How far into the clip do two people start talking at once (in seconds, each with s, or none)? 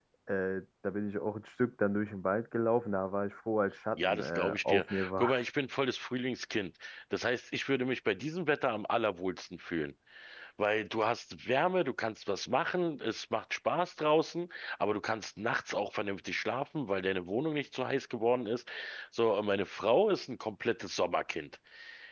4.0 s